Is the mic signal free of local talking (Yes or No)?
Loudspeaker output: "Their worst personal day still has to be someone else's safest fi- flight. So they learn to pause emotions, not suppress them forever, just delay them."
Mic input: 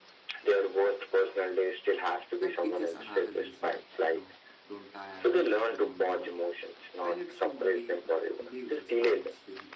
No